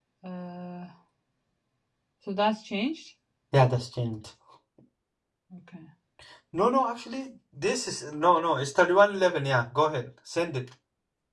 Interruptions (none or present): none